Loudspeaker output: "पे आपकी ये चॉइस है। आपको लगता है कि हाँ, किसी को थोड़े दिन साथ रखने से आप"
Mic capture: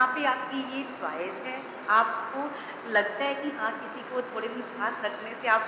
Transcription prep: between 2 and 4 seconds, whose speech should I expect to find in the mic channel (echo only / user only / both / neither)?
echo only